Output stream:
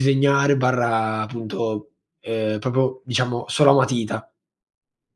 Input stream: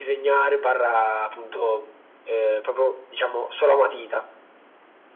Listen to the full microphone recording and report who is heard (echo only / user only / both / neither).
echo only